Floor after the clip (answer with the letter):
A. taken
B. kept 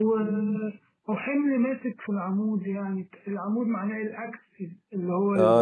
A